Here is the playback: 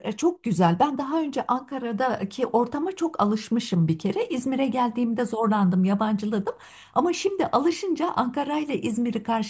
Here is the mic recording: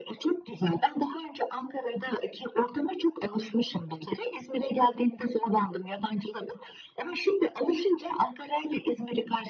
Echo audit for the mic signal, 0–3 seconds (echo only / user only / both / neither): echo only